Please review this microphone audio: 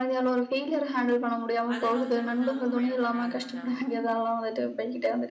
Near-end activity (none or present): present